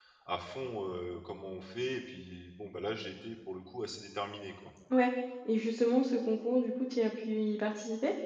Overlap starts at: none

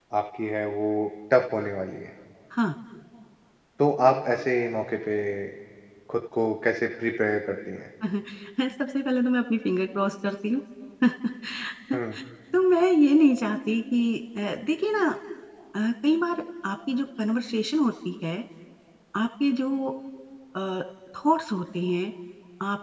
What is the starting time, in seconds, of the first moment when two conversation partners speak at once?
none

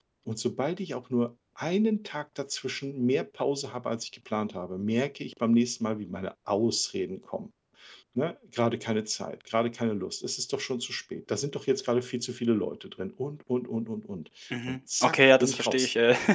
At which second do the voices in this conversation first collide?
15 s

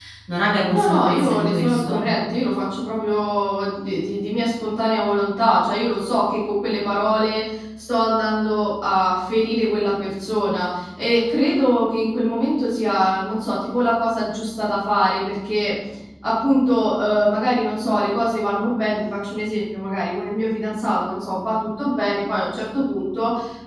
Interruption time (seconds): 1 s

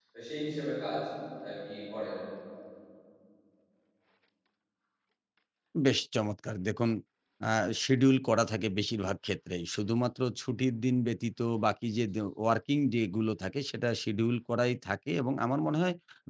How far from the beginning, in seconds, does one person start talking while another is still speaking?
none

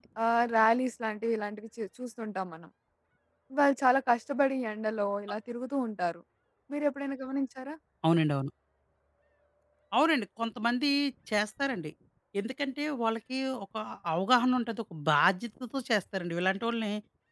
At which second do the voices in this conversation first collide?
none

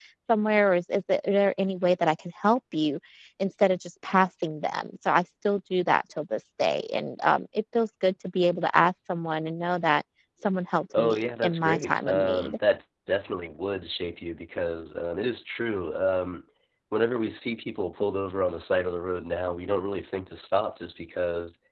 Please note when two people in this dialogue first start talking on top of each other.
11 s

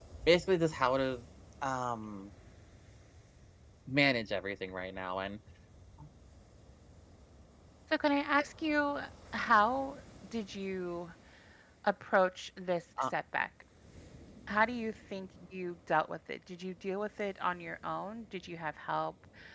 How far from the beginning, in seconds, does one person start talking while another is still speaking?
none

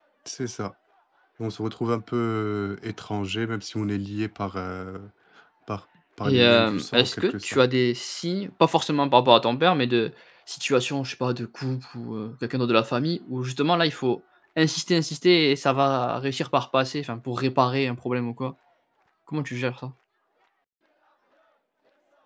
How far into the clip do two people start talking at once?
6 s

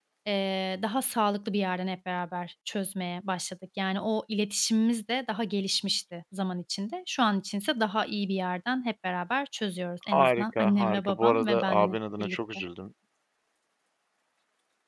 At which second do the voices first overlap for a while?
10 s

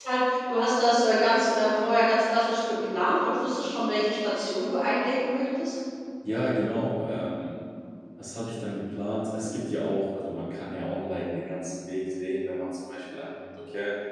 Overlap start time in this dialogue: none

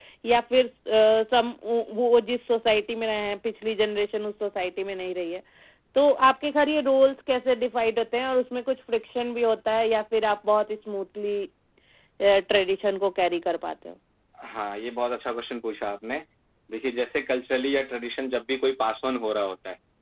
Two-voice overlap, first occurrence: none

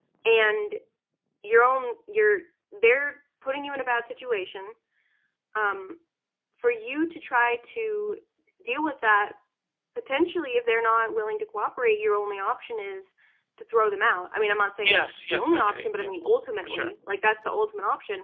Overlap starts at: 15 s

